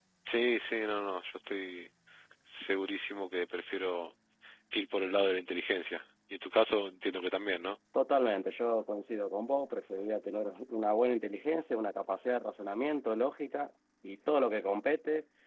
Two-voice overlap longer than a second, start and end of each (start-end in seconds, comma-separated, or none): none